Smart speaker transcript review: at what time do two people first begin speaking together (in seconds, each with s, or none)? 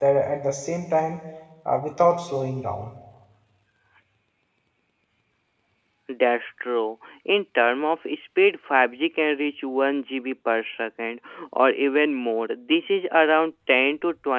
none